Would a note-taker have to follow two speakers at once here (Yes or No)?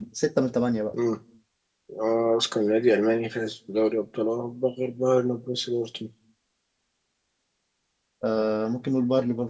No